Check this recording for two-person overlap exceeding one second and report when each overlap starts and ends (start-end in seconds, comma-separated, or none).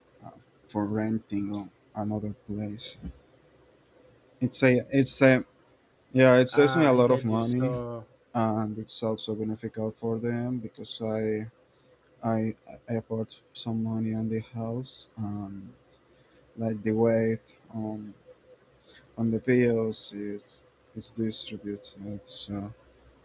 6.5-7.7